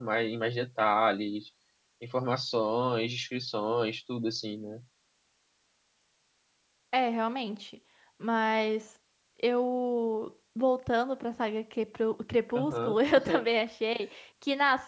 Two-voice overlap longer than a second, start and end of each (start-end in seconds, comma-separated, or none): none